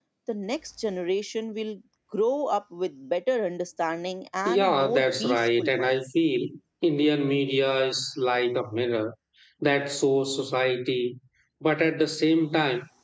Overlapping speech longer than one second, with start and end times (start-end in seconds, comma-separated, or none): 4.4-6.0